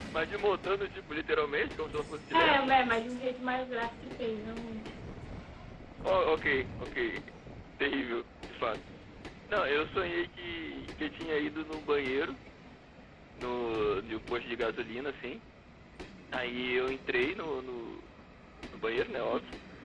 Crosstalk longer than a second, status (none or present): none